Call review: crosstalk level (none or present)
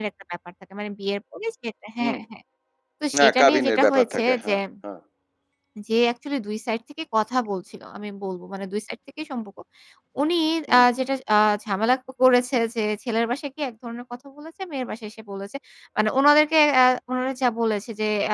present